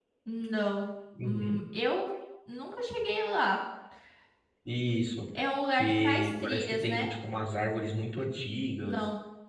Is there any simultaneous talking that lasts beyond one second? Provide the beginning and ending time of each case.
5.7-7.1

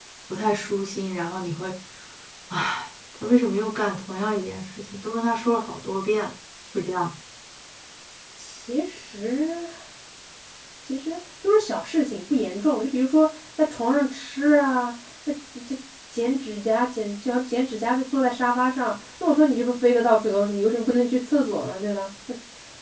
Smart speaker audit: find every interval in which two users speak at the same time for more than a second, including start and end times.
none

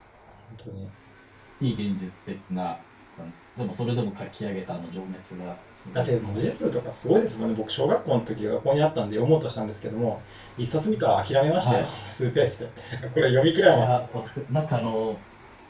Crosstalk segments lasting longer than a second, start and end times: none

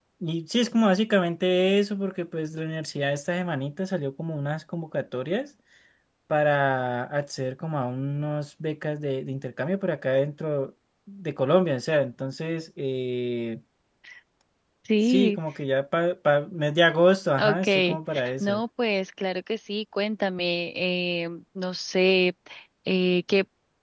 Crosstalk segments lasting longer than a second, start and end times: 17.4-18.6

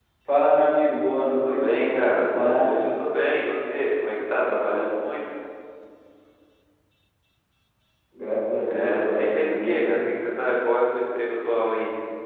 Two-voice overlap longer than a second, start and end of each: 1.3-2.8, 8.6-10.1

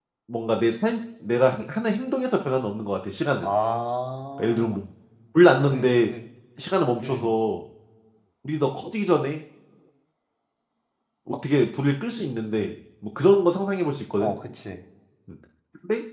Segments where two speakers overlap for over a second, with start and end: none

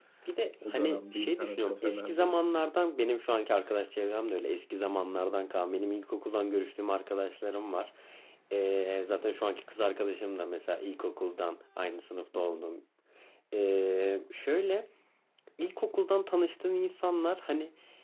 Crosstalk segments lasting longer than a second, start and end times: 0.6-2.3

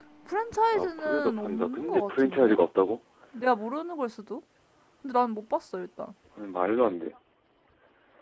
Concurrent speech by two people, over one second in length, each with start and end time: 0.7-2.6

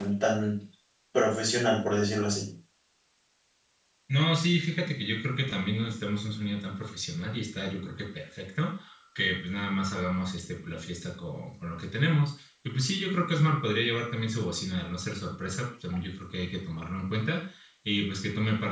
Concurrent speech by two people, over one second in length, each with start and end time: none

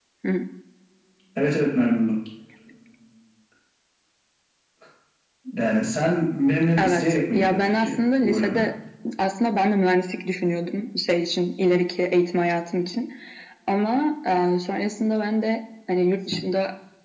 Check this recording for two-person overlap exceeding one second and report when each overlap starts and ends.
6.8-8.6

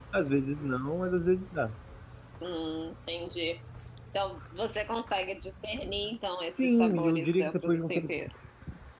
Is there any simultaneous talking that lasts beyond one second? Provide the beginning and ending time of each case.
6.5-8.2

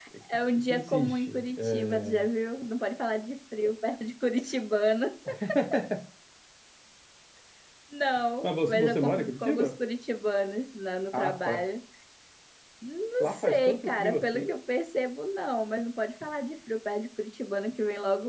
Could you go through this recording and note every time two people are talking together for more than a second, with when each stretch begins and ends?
0.5-2.2, 8.4-9.7, 13.2-14.5

